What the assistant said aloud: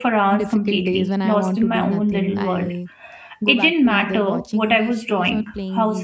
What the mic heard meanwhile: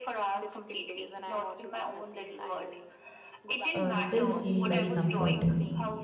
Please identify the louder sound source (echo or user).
user